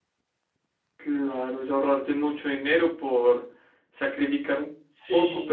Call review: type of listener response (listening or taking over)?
listening